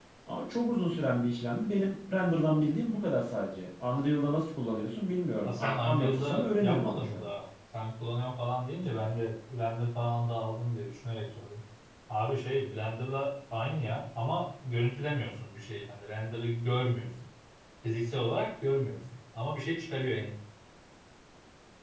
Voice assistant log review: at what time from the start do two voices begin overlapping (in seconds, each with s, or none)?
5.4 s